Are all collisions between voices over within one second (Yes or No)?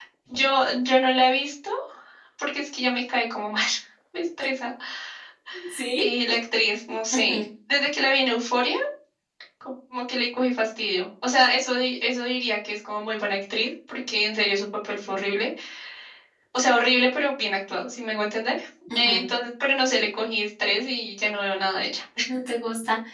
Yes